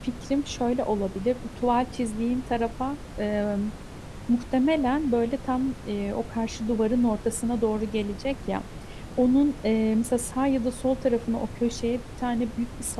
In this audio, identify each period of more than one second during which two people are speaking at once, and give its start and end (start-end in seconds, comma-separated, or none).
none